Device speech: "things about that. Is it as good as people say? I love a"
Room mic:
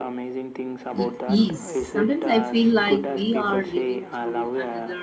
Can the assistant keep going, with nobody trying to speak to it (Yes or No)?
No